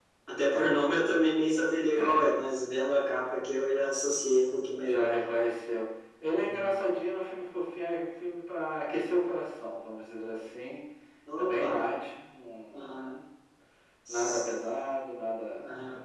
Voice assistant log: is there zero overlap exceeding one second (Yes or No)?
Yes